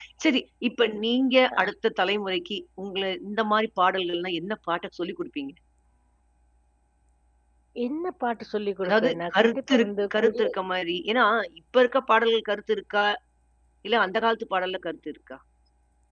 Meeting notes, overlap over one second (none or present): present